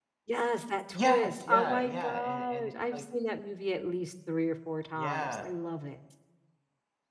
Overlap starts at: 1 s

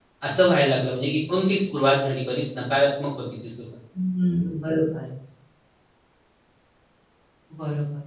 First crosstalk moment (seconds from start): none

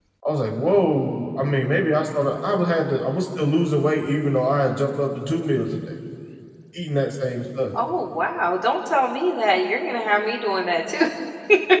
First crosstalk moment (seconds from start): none

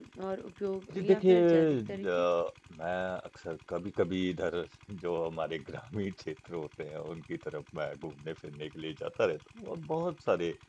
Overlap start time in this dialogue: 1 s

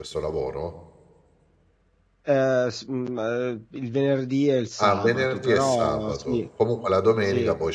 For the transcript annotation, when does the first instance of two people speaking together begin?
5 s

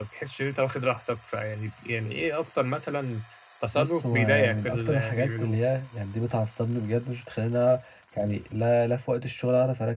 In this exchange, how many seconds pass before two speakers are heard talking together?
4 s

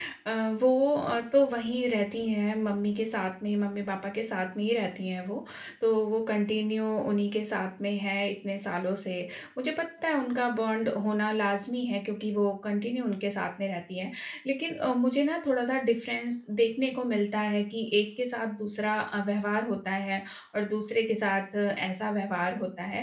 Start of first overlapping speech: none

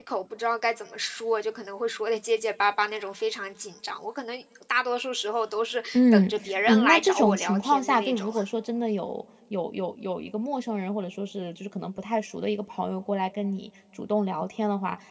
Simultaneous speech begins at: 6 s

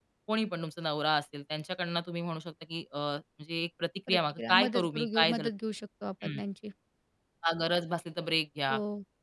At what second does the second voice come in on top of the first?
4 s

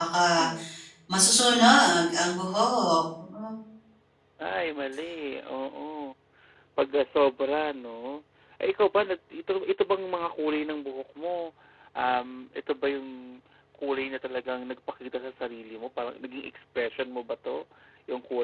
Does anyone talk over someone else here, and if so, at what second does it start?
none

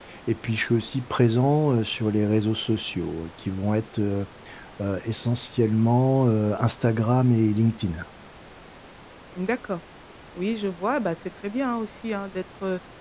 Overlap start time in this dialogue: none

